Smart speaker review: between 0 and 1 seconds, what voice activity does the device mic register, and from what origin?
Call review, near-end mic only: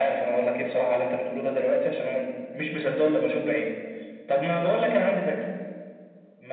echo only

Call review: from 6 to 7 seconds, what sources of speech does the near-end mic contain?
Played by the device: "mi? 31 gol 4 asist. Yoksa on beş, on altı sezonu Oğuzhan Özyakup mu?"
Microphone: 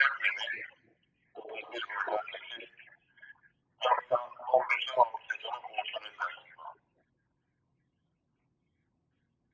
echo only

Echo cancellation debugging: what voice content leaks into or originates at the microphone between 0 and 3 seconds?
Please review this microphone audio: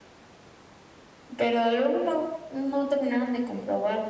echo only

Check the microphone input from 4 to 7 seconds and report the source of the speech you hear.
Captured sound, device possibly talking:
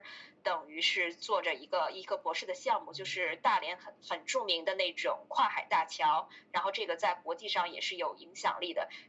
echo only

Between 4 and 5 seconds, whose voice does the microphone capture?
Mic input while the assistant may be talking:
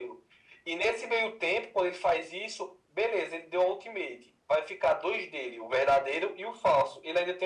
echo only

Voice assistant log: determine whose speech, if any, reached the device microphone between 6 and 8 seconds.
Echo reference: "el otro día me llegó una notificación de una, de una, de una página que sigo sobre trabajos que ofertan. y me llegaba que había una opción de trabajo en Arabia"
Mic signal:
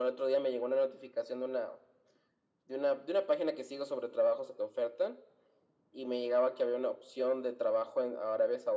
echo only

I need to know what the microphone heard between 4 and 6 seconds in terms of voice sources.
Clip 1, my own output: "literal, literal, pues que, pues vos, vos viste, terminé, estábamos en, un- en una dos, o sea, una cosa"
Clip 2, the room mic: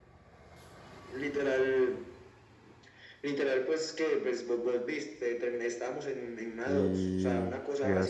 echo only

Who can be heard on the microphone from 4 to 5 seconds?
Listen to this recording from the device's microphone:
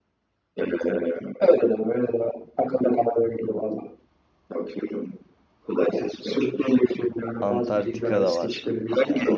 echo only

